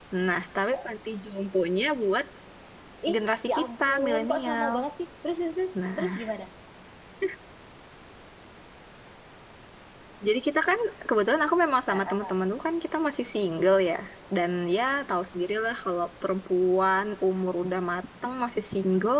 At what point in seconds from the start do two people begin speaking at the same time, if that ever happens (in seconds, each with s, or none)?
3.1 s